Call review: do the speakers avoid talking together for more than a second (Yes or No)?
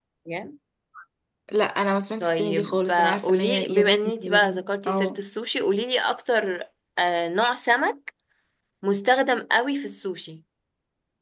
No